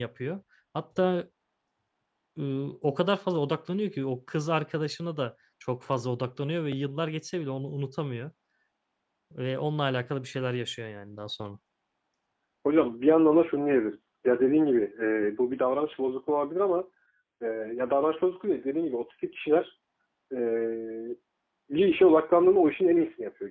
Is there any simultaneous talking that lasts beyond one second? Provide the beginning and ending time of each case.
none

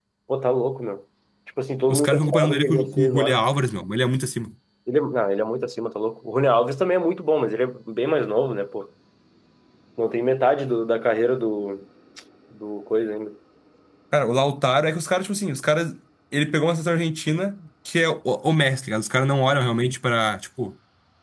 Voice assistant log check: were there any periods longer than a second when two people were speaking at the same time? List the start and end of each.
1.9-3.4

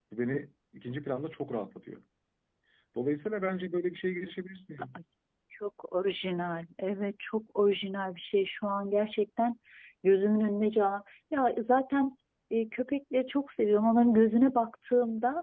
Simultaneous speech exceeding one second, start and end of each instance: none

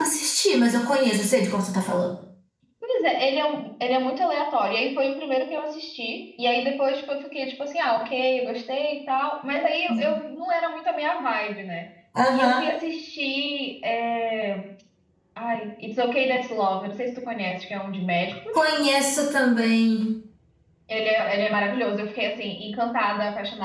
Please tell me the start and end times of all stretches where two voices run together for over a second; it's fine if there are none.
none

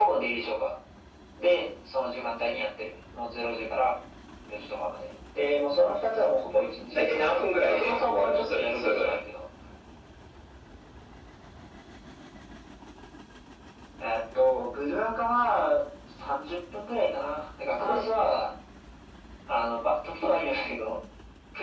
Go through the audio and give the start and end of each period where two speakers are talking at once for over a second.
6.9-9.1

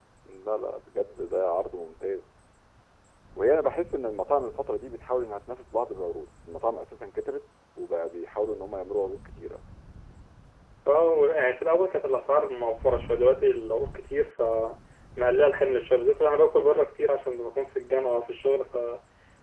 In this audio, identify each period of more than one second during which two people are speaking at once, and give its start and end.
none

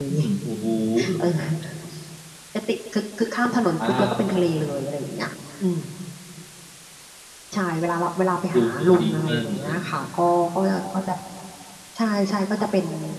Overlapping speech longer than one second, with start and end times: 8.5-9.8

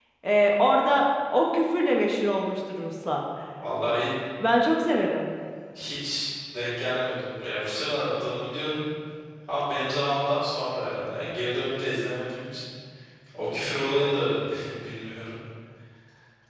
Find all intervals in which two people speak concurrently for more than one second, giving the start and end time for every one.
none

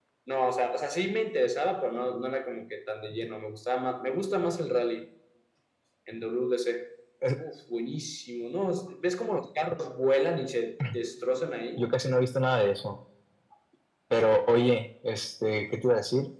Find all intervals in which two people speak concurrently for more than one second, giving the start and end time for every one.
none

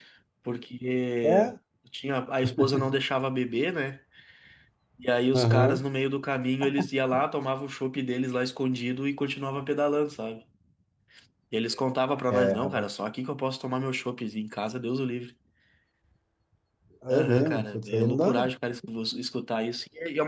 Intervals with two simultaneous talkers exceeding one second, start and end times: 17.1-18.4

